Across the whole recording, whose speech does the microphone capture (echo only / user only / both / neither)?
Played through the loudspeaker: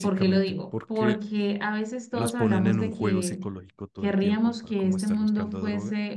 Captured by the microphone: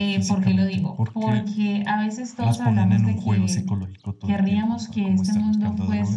echo only